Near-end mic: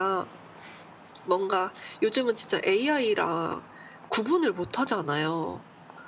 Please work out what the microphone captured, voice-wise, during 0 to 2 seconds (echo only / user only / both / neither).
echo only